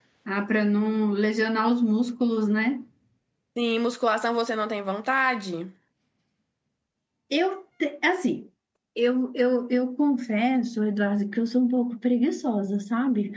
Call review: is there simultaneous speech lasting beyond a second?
No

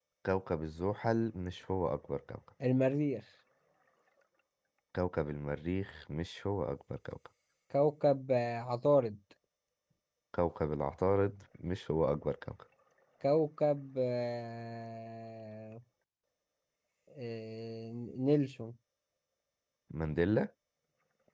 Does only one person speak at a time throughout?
Yes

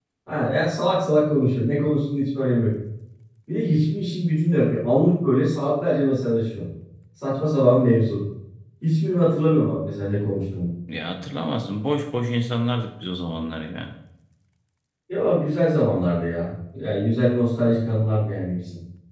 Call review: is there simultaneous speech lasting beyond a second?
No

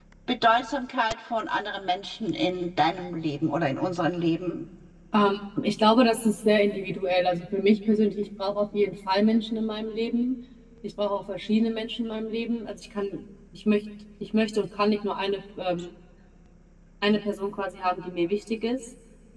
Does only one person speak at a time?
Yes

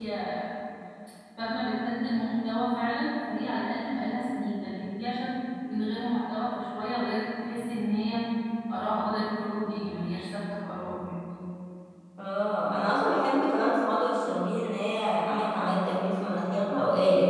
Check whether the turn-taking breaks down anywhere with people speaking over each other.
No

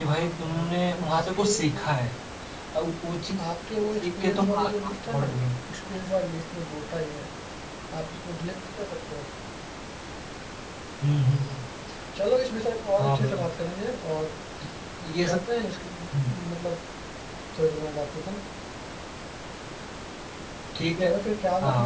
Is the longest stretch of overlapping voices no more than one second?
No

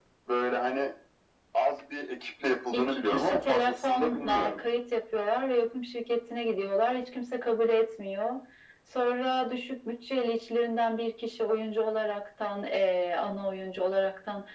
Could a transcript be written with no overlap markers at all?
No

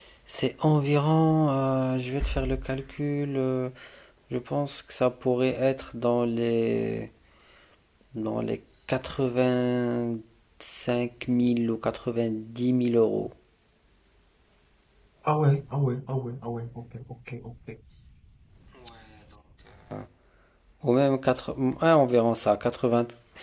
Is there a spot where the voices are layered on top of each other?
No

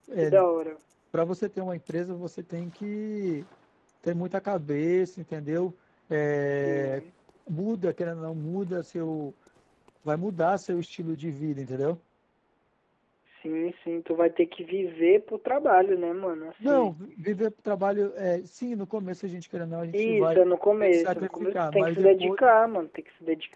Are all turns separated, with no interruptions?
No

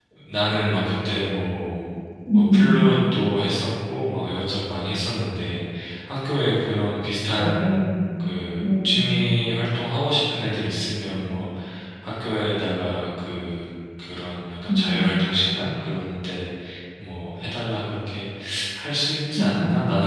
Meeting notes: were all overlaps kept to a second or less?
Yes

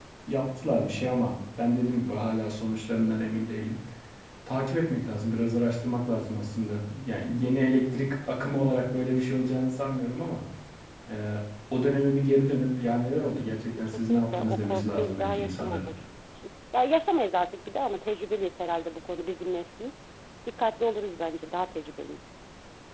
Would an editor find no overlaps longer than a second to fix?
No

